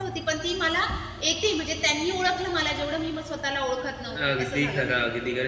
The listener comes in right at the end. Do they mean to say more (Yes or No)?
Yes